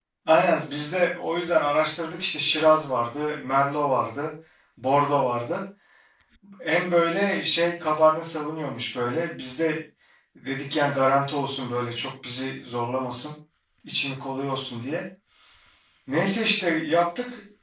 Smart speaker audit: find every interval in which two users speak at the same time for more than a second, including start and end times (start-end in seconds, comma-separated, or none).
none